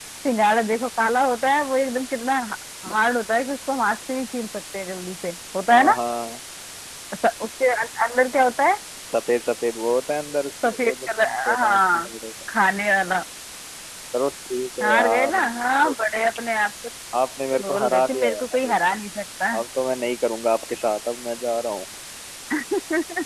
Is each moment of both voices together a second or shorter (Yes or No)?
No